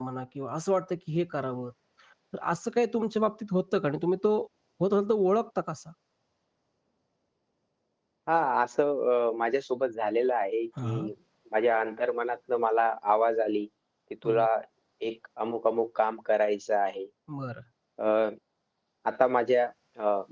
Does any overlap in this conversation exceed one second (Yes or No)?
No